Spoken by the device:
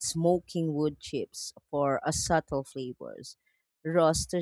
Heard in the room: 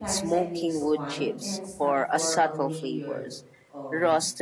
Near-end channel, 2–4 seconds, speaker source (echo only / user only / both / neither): both